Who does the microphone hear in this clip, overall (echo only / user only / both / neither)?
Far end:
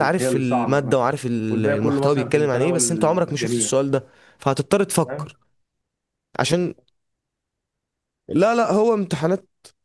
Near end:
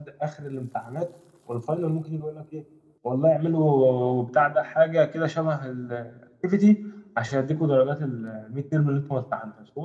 user only